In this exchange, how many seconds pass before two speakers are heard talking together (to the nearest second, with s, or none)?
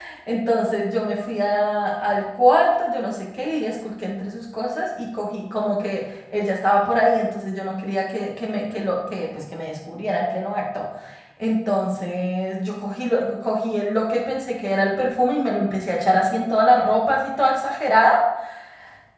none